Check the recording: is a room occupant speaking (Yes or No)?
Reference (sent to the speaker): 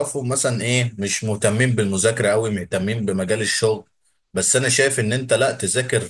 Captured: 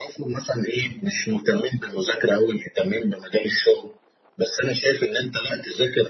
No